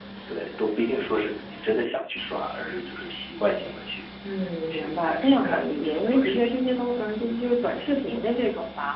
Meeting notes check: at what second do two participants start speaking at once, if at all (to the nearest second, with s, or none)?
5 s